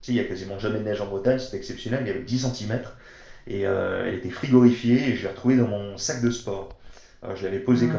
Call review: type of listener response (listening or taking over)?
listening